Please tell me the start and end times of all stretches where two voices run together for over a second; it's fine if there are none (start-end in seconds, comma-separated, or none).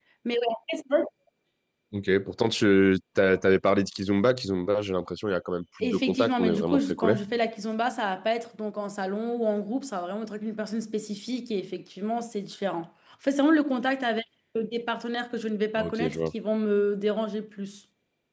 5.8-7.2